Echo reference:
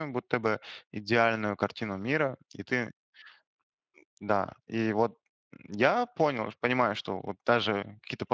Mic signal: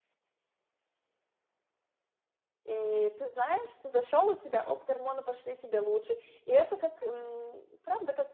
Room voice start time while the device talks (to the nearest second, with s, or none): 3 s